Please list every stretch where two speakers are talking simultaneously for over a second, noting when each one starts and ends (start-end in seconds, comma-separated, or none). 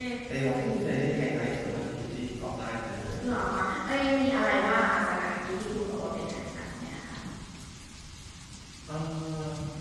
none